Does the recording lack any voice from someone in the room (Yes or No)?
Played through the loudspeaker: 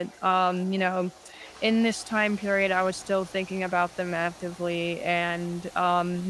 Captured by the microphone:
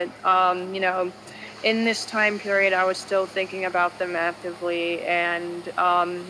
Yes